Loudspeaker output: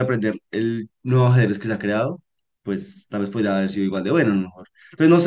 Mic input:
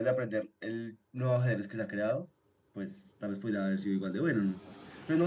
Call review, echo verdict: present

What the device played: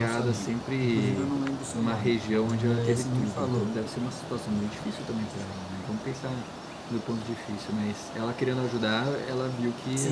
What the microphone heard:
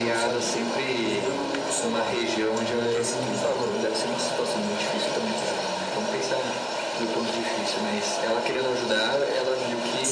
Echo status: present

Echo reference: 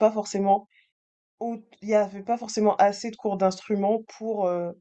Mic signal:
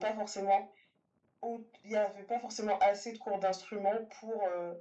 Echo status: present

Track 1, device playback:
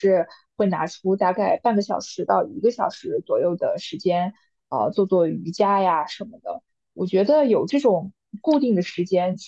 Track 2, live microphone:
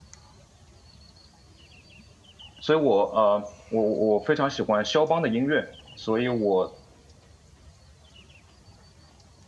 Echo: none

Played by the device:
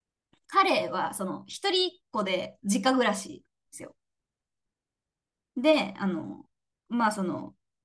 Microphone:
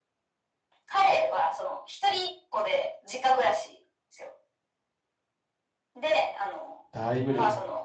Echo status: present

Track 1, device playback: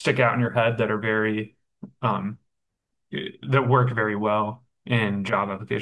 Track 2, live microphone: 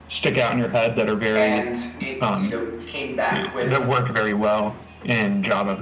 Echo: present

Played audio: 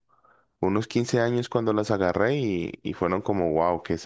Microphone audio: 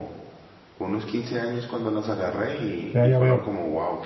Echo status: present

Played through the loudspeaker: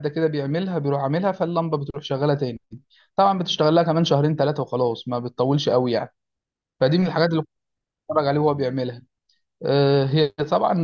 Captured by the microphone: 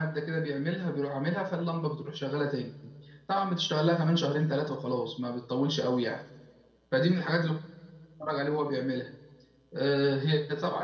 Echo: present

